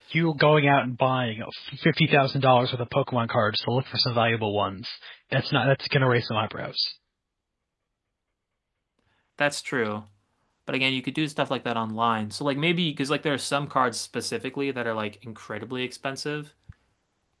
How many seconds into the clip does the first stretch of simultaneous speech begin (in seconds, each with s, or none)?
none